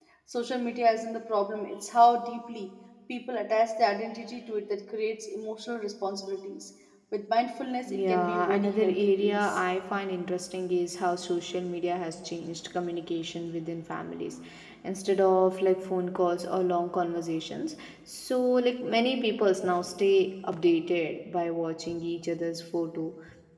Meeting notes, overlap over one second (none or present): present